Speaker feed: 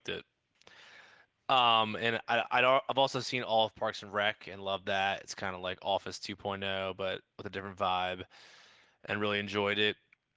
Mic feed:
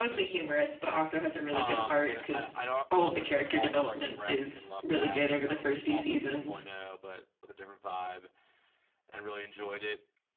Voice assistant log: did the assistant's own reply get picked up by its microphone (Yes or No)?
Yes